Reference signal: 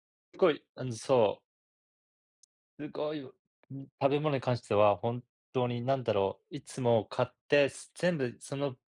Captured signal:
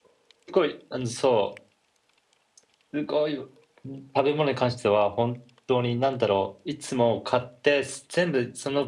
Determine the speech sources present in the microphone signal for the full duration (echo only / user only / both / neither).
echo only